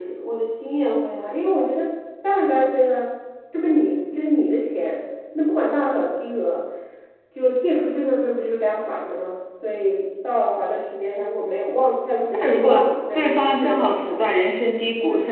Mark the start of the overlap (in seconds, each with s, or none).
12.3 s